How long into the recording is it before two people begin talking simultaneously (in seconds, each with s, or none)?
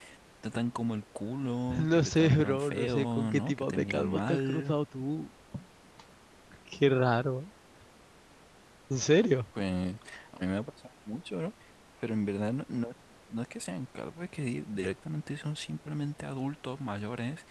1.7 s